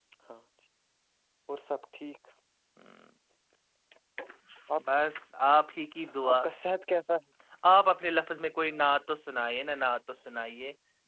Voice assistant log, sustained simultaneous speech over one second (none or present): none